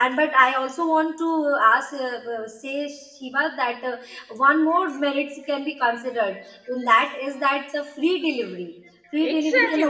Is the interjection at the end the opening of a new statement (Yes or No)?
Yes